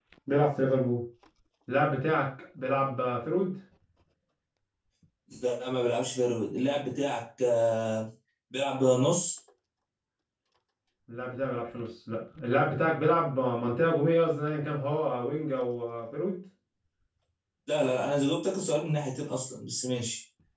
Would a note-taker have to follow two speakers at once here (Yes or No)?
No